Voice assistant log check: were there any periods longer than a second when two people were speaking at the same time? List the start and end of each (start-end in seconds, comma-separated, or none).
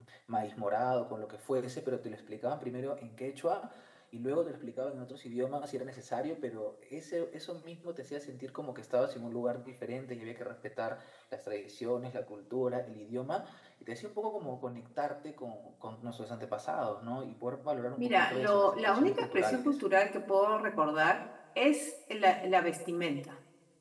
18.0-19.8